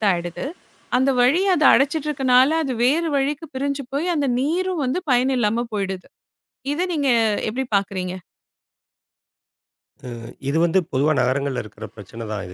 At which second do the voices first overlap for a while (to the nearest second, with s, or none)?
none